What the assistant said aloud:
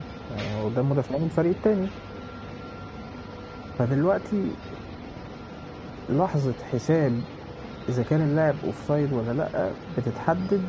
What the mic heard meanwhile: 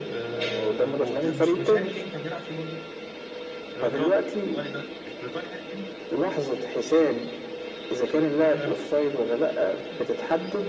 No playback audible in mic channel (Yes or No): No